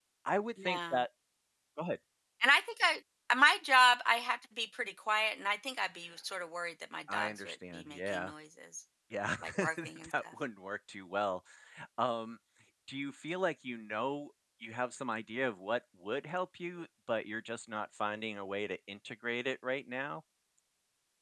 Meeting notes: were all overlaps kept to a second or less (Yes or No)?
No